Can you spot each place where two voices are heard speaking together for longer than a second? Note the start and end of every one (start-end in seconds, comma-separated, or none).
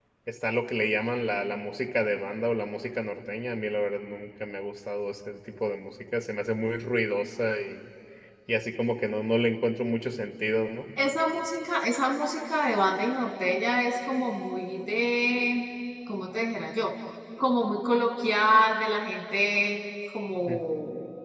none